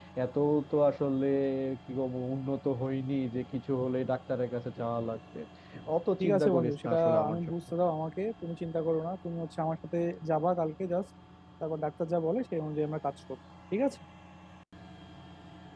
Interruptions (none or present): present